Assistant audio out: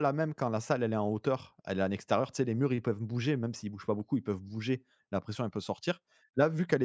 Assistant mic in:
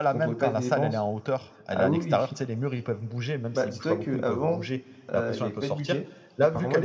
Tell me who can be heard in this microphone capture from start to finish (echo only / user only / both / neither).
both